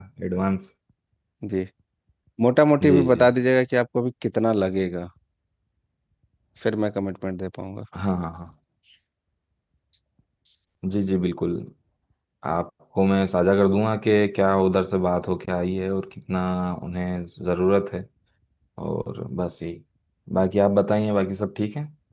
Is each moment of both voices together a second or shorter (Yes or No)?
Yes